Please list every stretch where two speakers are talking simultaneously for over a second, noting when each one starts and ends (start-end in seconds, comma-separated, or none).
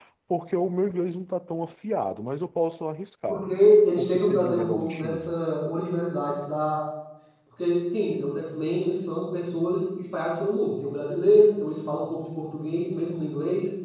4.0-5.3